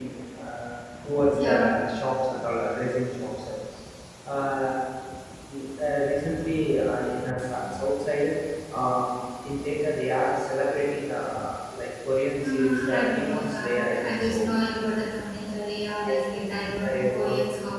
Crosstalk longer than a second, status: present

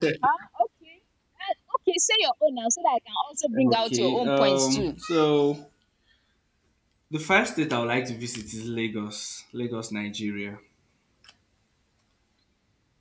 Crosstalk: present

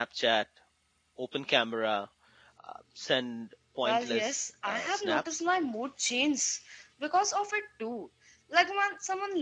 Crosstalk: present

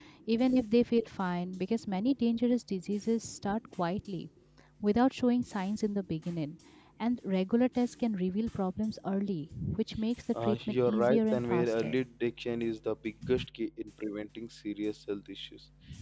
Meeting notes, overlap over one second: present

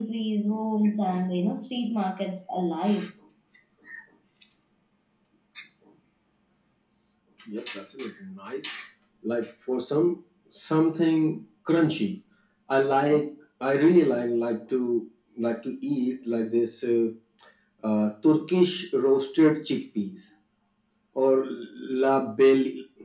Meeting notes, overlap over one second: none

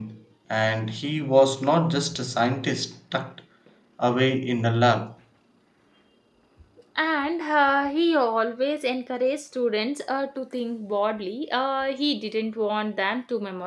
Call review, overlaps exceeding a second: none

